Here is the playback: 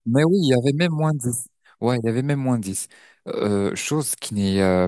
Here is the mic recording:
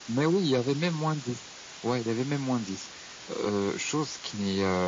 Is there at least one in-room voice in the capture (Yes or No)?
No